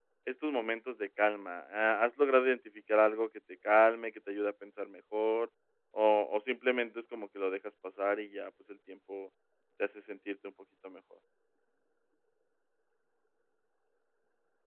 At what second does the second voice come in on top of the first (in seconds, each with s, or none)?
none